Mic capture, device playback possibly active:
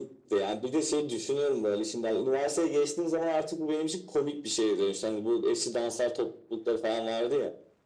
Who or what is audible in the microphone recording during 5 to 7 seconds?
echo only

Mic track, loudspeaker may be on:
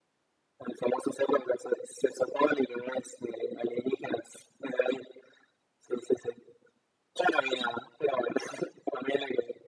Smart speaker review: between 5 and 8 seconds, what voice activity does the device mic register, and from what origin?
echo only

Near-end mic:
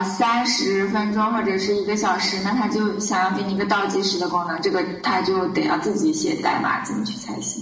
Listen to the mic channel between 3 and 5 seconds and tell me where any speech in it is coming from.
echo only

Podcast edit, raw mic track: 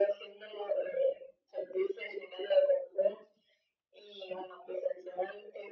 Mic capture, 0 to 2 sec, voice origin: echo only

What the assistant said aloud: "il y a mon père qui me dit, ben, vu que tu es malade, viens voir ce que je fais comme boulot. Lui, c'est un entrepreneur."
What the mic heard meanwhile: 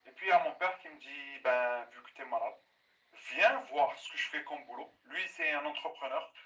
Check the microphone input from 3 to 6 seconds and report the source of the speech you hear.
echo only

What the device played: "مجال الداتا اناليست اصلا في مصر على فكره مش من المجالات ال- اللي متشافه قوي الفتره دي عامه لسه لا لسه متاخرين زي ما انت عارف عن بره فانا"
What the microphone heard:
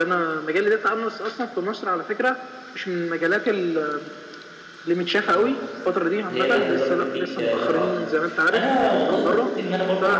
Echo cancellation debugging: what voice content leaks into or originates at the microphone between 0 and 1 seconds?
echo only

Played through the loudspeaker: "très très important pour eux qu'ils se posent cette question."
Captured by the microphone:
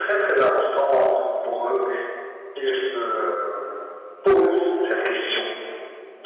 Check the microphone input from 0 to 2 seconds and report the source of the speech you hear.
echo only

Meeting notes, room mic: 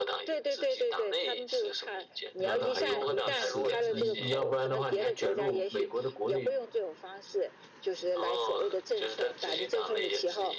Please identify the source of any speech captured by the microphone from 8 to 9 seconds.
echo only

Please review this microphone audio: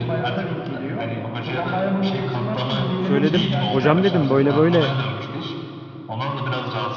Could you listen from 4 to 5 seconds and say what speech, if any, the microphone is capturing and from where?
both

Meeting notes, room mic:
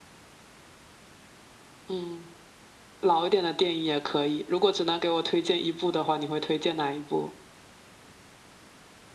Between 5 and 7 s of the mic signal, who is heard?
echo only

